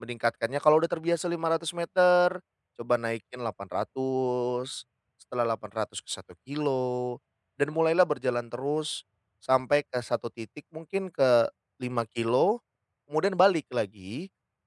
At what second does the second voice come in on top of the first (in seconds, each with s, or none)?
none